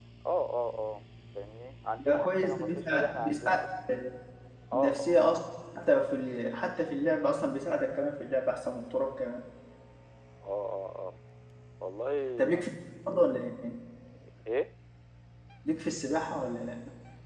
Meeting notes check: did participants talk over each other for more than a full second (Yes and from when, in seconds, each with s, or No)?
Yes, from 2.0 s